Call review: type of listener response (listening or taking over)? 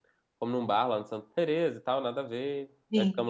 listening